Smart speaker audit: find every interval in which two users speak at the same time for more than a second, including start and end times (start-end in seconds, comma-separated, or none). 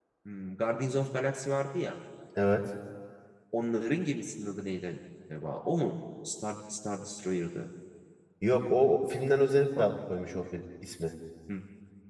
none